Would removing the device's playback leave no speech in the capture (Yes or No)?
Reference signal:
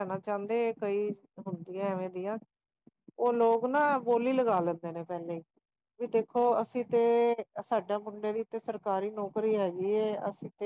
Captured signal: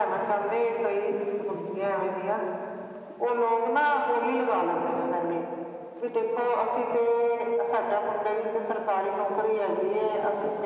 Yes